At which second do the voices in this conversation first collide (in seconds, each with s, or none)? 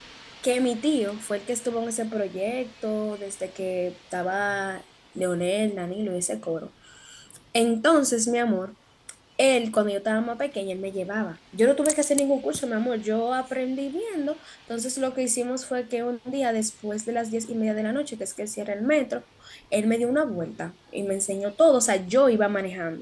none